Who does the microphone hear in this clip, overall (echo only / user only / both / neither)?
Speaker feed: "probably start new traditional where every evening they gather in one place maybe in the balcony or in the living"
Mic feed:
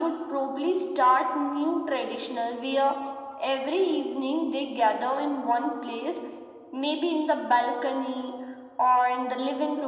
echo only